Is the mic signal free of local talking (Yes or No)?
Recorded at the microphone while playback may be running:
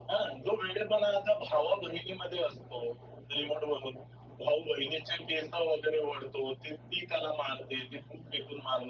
Yes